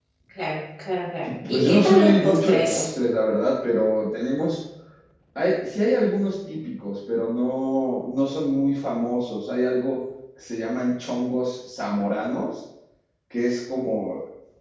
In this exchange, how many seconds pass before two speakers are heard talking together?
1.5 s

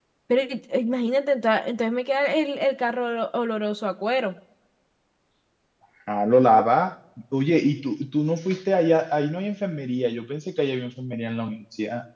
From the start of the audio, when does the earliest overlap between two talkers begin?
none

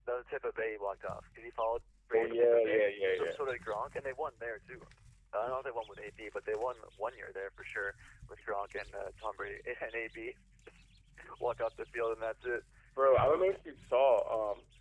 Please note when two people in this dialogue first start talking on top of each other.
2.1 s

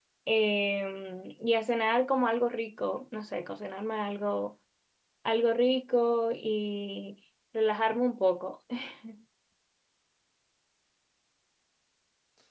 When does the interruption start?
none

